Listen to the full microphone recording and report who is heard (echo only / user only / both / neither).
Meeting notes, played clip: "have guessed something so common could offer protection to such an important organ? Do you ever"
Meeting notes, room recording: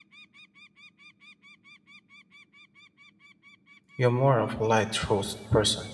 user only